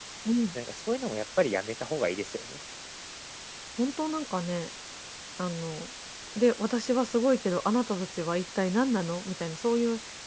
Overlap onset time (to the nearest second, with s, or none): none